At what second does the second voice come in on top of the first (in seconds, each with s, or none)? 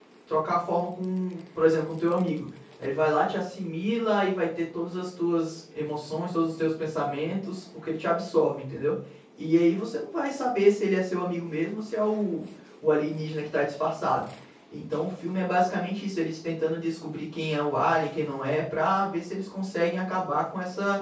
none